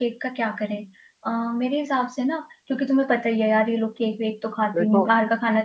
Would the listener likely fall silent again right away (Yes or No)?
Yes